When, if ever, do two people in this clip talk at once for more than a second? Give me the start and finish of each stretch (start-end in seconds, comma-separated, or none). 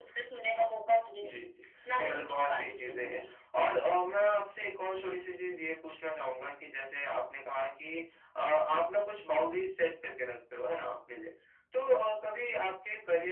2.0-3.2